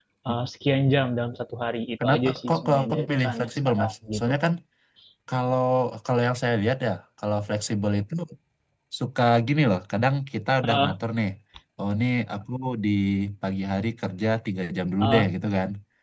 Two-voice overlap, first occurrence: 2.0 s

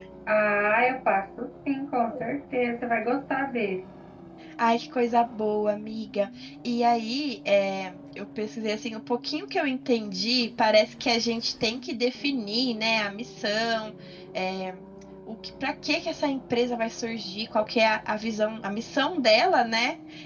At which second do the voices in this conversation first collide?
none

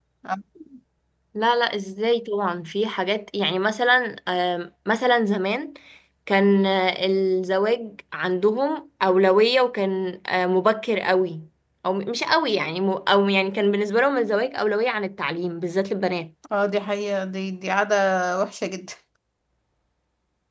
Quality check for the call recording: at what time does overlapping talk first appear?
none

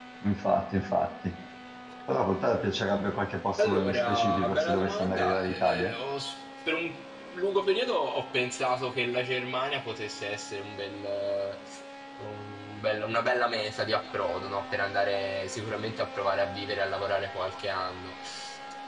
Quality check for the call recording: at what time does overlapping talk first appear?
3.6 s

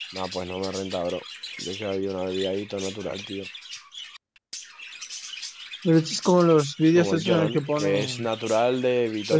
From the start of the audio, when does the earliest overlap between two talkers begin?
7.0 s

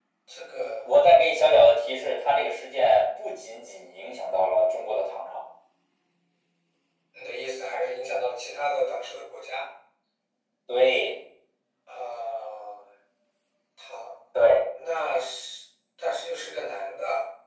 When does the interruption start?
none

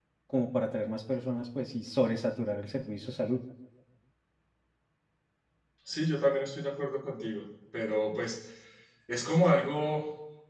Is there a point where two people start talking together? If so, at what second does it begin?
none

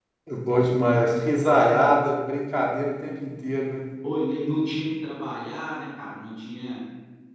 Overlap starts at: none

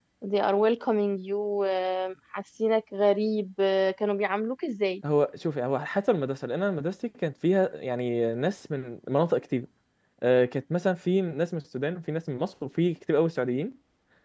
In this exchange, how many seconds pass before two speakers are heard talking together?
none

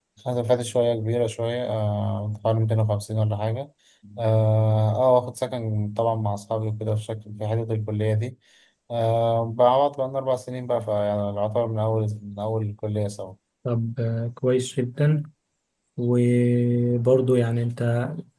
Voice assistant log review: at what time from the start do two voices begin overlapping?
none

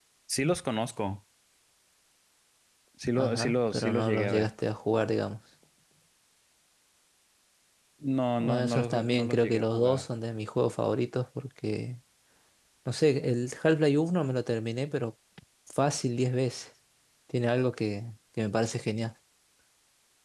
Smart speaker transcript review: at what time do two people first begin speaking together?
3.1 s

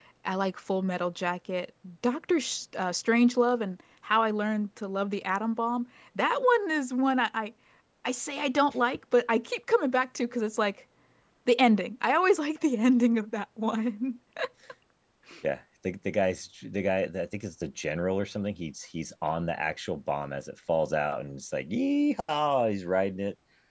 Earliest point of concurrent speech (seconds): none

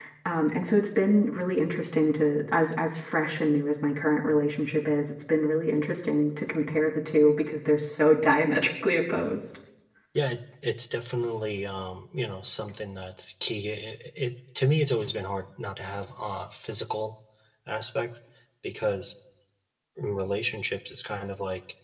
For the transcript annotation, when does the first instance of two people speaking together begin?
none

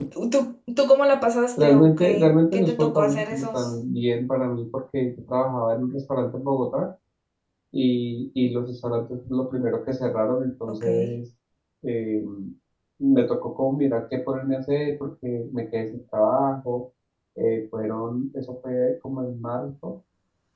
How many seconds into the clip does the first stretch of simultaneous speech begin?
1.6 s

